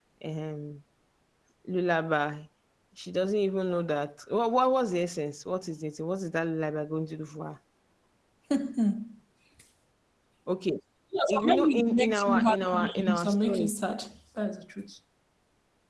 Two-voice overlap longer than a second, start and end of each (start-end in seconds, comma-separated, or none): 11.3-13.7